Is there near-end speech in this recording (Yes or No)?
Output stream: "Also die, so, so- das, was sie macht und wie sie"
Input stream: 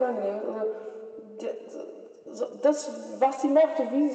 No